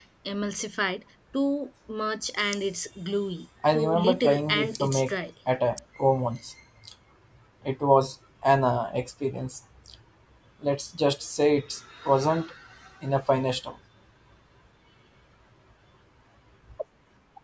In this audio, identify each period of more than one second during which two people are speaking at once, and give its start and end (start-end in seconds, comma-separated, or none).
3.7-5.1